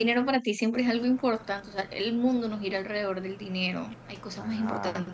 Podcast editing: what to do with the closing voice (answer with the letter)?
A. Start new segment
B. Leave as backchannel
A